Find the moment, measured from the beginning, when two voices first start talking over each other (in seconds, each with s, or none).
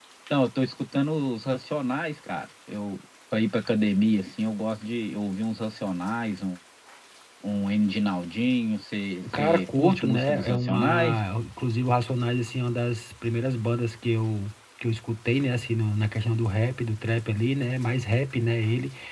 9.2 s